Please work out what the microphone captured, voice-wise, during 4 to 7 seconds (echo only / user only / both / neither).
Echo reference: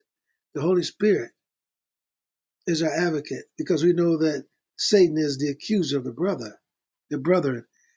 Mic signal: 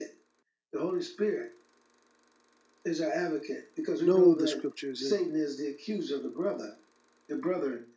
both